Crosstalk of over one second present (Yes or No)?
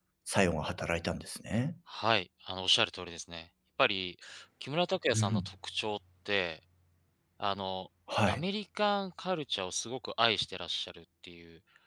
No